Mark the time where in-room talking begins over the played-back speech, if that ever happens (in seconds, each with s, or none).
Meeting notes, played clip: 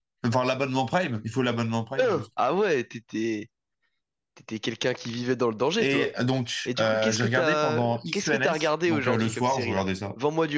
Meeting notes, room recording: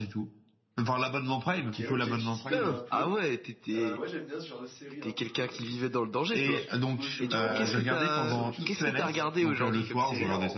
1.5 s